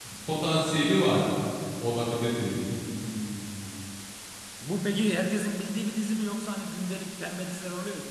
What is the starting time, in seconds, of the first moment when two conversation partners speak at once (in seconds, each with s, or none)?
none